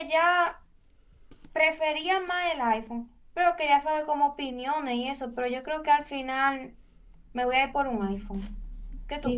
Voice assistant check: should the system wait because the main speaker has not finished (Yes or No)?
No